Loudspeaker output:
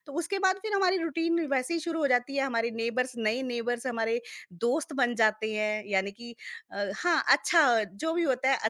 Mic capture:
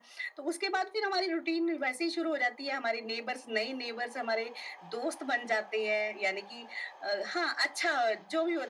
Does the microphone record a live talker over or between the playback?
No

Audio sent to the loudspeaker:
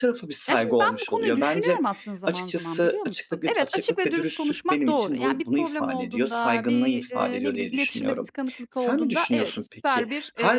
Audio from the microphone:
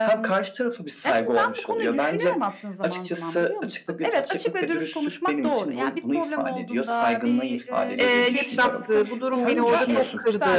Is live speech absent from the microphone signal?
No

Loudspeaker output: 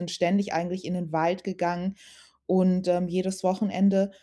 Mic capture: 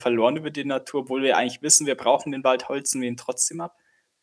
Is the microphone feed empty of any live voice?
No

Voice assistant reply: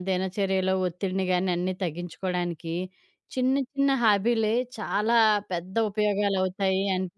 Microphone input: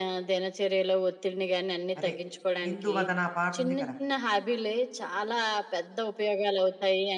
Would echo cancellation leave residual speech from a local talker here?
Yes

